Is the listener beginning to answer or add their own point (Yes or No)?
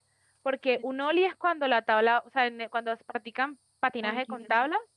No